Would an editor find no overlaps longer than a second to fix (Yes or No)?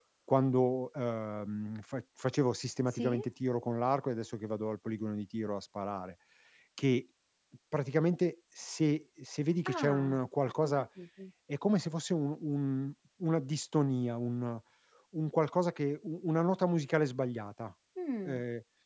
Yes